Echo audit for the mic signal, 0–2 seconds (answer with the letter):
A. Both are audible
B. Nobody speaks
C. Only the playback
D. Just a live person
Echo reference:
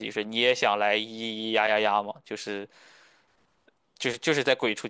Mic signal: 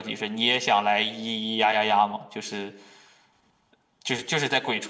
C